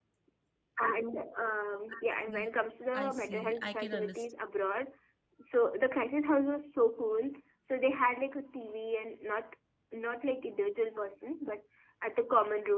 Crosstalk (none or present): present